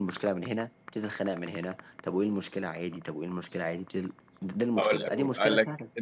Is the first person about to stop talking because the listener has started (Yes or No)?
Yes